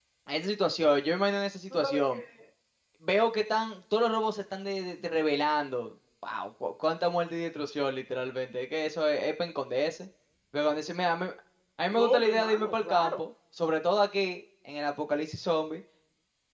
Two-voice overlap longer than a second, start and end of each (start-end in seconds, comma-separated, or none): 12.0-13.2